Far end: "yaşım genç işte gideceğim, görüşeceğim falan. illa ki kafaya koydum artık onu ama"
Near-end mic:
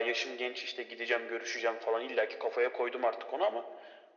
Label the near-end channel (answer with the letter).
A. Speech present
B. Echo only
B